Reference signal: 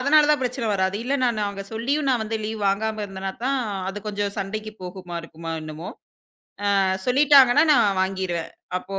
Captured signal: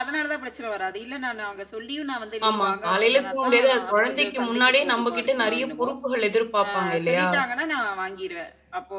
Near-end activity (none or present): present